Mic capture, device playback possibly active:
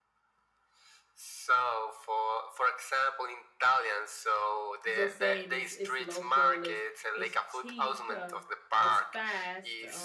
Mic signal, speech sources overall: both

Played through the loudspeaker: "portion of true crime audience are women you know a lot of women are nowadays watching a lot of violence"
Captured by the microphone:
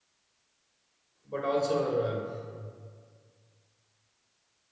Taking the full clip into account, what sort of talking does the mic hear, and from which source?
user only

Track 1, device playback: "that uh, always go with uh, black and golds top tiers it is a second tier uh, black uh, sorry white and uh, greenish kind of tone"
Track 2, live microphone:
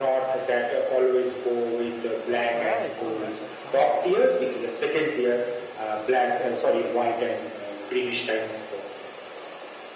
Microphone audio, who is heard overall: both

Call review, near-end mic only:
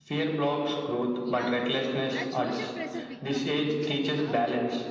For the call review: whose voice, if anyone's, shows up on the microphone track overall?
both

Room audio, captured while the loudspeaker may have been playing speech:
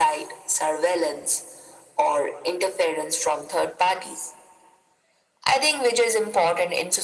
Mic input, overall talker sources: echo only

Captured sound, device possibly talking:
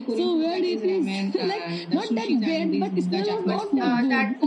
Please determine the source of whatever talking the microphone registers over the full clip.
both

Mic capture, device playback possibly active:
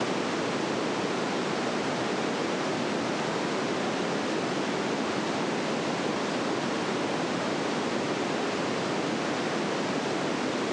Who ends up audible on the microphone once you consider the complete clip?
neither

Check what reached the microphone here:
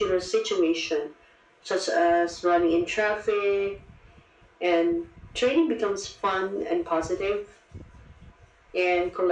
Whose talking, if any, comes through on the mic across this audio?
echo only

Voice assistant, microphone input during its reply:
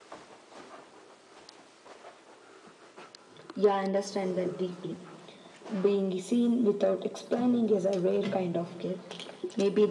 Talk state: echo only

